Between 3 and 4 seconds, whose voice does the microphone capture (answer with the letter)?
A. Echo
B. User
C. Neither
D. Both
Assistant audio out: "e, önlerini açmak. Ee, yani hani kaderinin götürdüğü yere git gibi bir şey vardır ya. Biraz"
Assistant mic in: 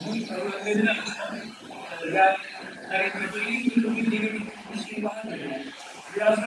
A